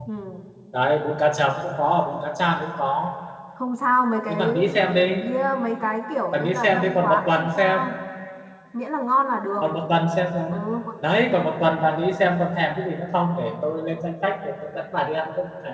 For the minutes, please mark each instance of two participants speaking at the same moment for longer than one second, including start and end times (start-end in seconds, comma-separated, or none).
6.3-7.8